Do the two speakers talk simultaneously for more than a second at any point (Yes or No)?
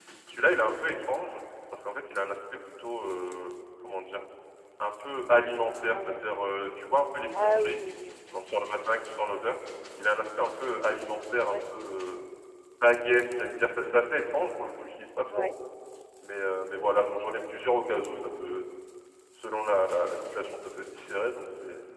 No